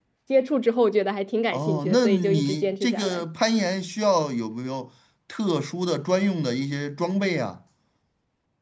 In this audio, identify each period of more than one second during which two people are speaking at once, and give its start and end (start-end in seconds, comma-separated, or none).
1.5-3.2